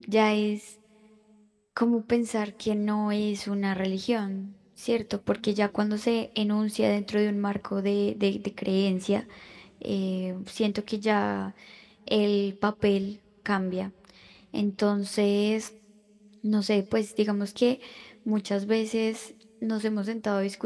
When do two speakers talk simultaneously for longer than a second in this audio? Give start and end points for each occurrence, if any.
none

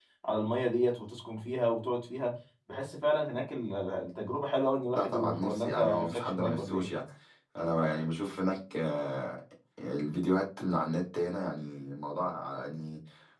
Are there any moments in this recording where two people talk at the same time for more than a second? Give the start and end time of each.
4.9-6.8

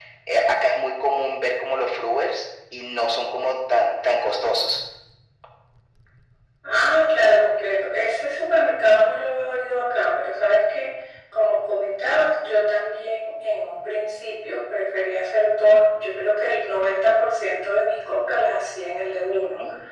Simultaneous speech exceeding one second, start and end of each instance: none

